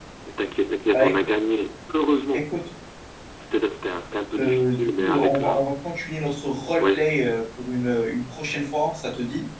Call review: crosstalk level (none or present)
present